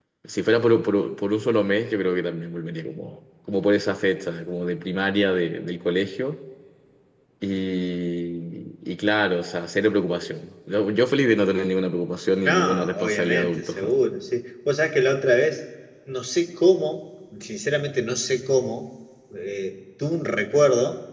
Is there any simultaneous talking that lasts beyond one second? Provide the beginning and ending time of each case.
12.4-13.7

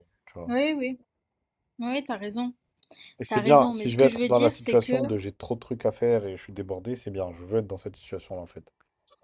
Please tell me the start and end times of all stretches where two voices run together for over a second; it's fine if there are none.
3.3-5.0

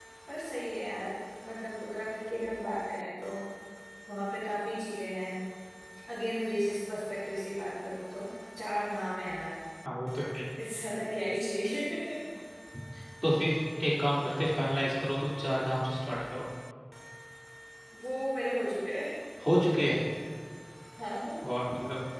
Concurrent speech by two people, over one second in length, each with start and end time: none

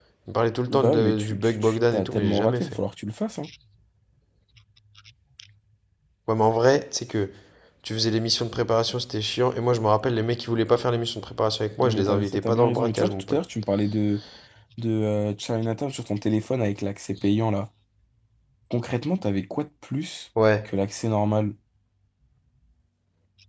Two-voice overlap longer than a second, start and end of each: 0.7-2.8, 11.8-13.4

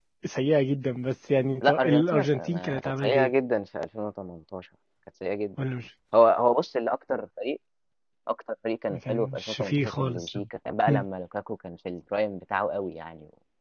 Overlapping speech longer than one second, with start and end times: 1.6-3.3, 8.9-10.2

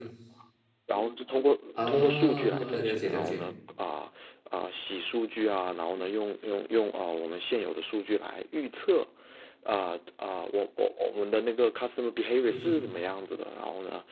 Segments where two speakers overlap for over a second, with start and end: 2.0-3.4

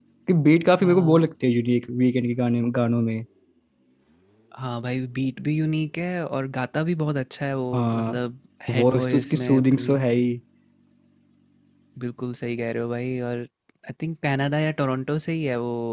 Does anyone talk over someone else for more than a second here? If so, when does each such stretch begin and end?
8.8-10.0

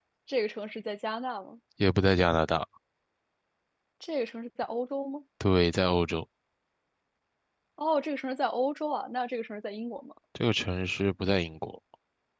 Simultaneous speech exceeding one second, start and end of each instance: none

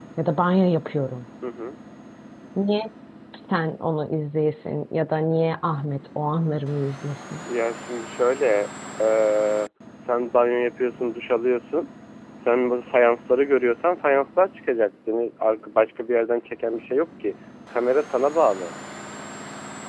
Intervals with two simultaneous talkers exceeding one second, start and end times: none

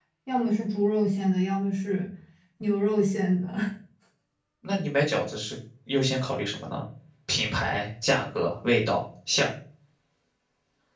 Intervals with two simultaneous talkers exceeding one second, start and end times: none

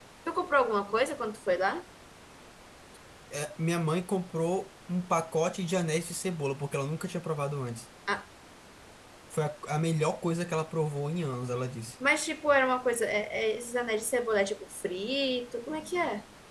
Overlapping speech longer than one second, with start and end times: none

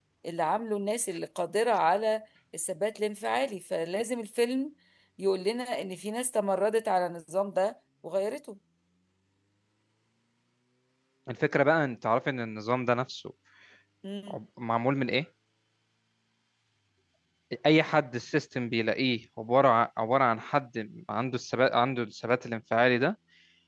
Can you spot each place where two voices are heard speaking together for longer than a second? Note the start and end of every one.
none

